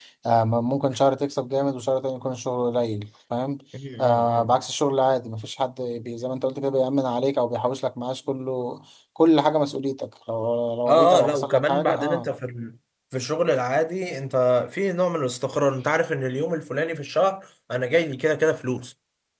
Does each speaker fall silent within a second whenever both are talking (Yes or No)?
No